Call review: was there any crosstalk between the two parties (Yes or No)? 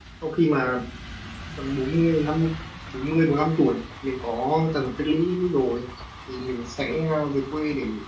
No